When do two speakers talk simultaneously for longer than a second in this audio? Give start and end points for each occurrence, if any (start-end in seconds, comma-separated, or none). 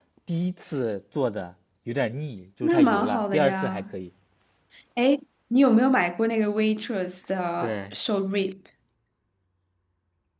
2.6-3.8